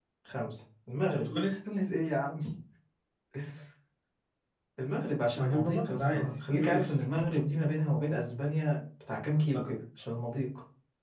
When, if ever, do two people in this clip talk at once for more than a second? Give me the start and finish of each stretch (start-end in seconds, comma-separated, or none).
5.4-6.9